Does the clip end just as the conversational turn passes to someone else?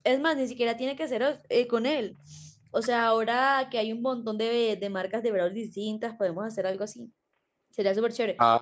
No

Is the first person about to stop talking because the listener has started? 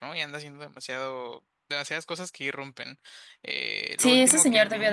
Yes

